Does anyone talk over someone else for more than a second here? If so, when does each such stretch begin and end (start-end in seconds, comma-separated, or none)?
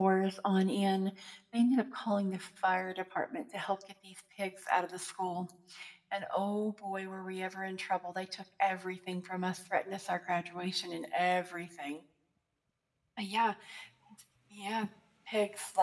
none